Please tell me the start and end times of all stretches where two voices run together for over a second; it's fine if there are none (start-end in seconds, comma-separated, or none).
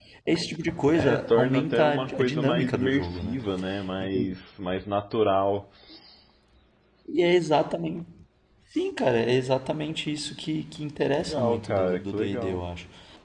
0.9-3.3, 11.0-12.6